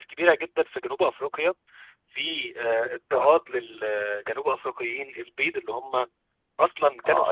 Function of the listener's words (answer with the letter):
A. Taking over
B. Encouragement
A